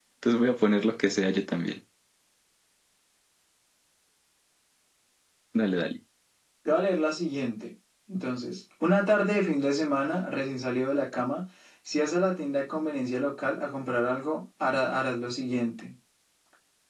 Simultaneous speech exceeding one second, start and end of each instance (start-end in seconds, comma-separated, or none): none